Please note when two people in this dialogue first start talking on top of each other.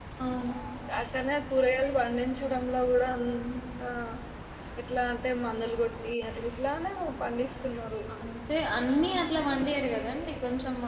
none

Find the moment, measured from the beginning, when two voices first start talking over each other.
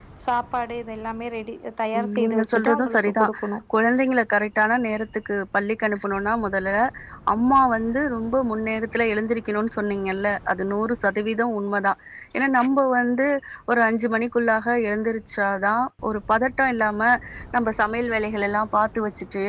1.9 s

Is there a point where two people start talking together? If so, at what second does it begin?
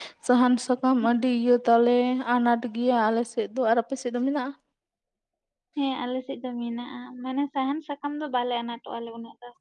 none

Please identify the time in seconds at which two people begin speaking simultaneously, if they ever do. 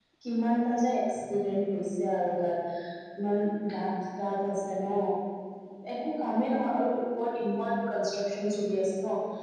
none

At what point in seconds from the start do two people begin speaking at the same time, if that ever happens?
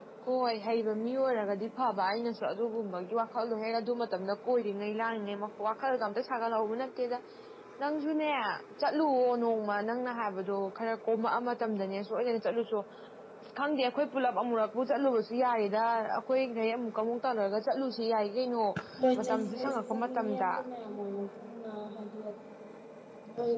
19.2 s

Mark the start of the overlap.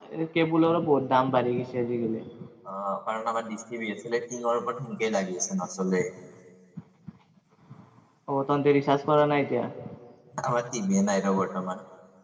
none

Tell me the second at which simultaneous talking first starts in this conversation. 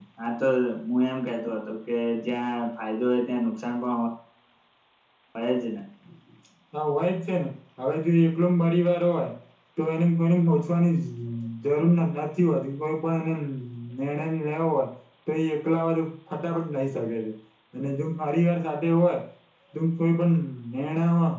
none

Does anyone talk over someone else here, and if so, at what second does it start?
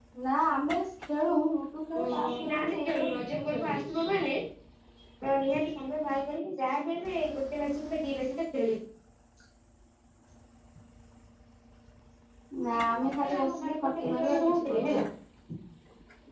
2.0 s

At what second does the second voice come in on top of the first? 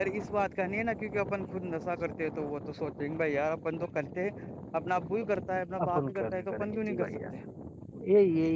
5.8 s

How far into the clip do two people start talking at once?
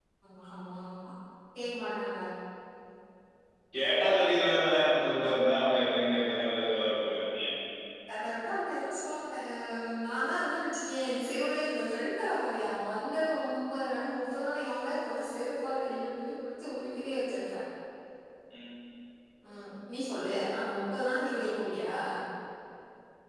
none

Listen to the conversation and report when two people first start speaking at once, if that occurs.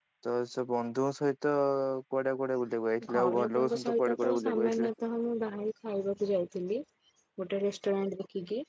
3.0 s

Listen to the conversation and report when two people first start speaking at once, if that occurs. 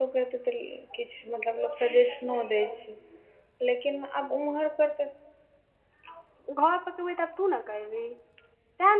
none

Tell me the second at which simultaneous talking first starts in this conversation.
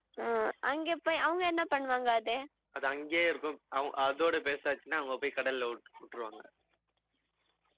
none

